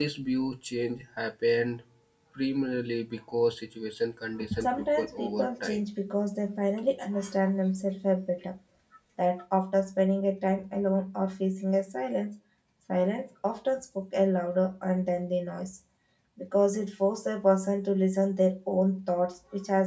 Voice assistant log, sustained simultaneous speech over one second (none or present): present